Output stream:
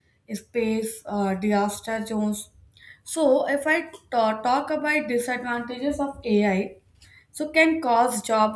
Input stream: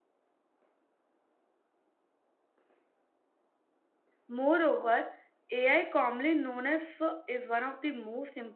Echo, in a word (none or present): none